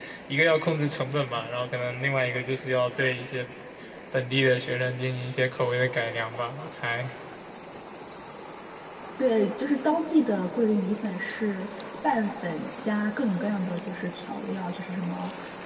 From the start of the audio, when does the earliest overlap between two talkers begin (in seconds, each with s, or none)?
none